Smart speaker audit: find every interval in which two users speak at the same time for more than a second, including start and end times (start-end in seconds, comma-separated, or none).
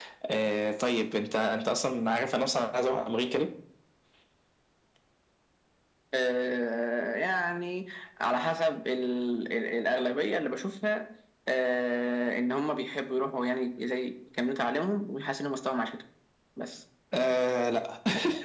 none